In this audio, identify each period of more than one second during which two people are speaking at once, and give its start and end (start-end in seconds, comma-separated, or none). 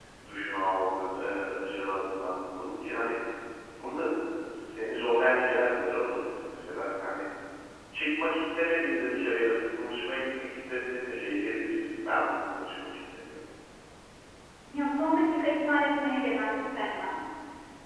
none